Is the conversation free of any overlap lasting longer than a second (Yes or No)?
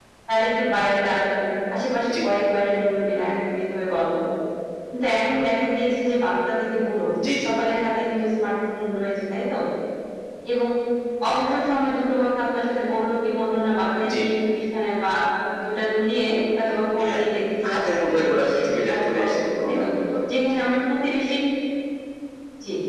No